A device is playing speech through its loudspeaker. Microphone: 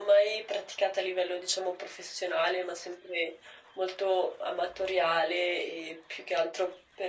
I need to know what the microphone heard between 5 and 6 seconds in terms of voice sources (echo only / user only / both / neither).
echo only